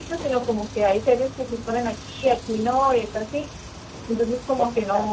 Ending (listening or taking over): listening